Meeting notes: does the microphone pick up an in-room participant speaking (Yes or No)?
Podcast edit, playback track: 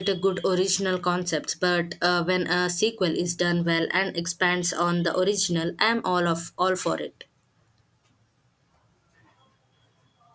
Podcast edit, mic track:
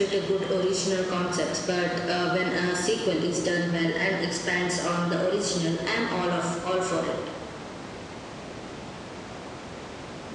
No